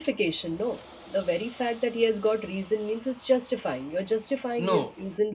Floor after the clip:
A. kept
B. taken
B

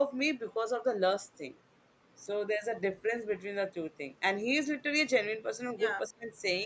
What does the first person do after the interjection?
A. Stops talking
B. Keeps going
B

